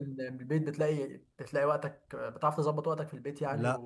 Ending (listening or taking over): taking over